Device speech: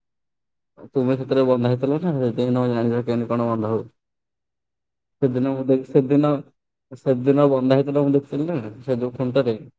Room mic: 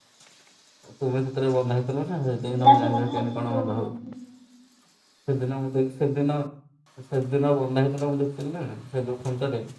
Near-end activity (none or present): present